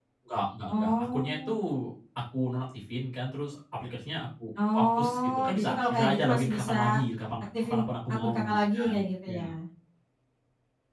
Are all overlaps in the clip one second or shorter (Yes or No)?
No